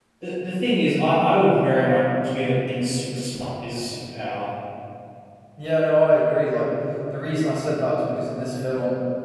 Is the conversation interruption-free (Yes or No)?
Yes